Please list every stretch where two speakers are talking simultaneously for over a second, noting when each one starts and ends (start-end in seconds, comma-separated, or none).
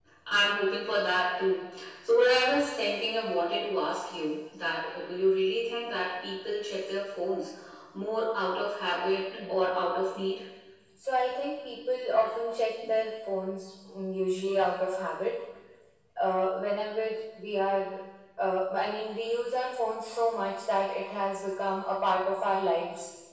none